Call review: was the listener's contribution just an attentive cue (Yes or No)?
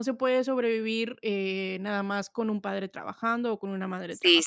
No